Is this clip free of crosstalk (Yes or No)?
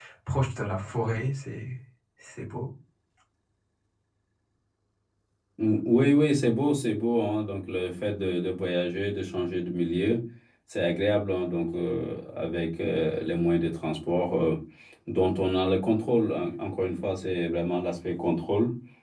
Yes